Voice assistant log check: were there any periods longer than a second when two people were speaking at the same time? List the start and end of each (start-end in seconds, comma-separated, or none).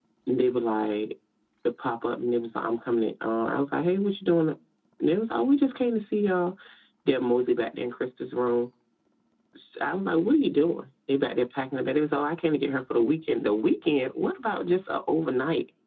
none